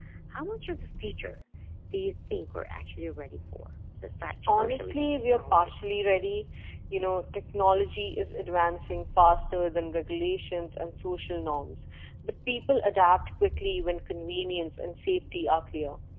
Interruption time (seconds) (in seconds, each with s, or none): 4.5 s